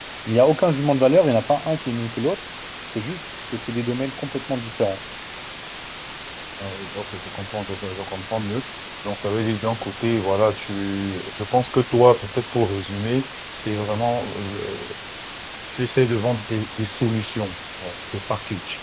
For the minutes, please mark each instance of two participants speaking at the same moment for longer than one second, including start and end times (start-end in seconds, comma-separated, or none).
none